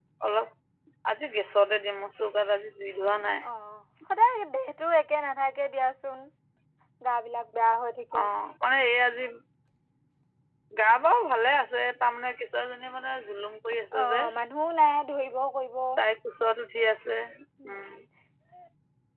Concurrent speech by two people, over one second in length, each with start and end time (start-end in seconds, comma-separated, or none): none